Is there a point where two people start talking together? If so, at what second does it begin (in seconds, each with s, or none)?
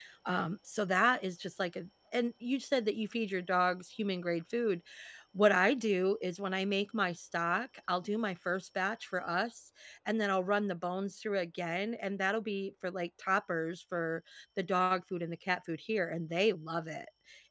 none